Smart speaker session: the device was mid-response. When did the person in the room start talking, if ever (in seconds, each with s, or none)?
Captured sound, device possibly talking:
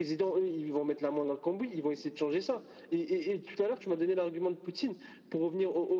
none